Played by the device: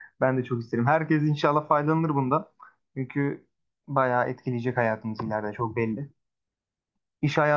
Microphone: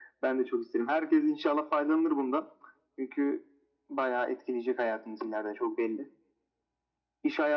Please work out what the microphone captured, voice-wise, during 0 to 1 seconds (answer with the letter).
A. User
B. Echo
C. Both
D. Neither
B